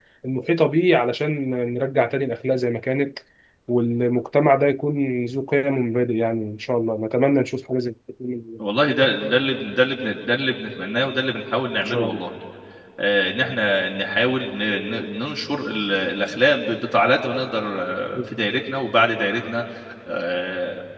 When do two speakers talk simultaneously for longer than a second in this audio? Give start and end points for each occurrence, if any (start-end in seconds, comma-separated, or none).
none